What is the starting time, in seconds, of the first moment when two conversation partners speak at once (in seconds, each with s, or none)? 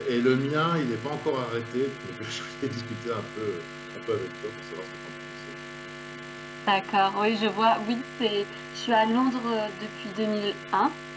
none